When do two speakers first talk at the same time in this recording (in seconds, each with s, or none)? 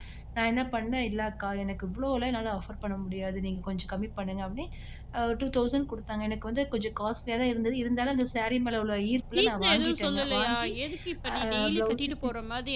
9.3 s